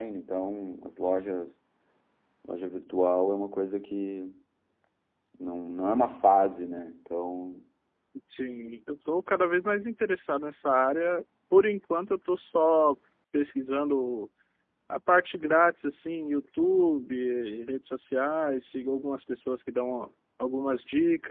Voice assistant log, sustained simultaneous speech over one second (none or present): none